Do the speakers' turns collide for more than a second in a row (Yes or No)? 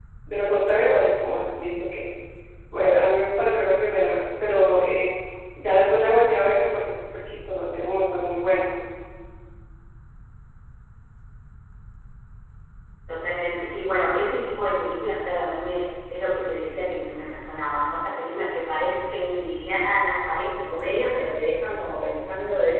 No